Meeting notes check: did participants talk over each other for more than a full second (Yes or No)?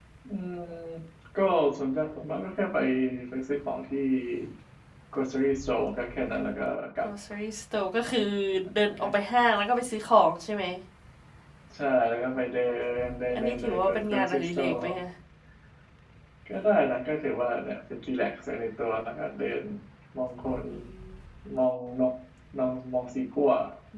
Yes